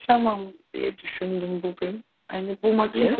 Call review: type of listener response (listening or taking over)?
listening